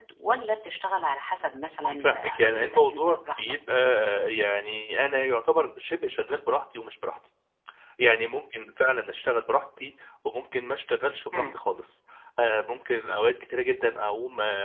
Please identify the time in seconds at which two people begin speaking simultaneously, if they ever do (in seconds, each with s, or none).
1.8 s